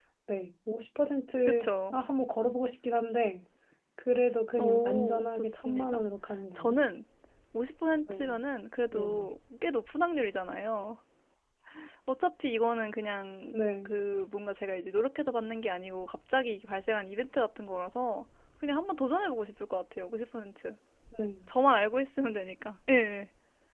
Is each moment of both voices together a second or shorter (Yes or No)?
No